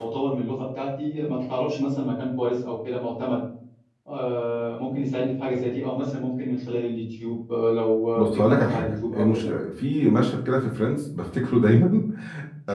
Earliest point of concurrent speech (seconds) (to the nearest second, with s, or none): 8 s